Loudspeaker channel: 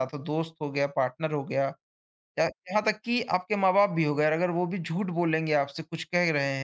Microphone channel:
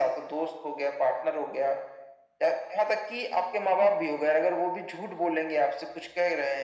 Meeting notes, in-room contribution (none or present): none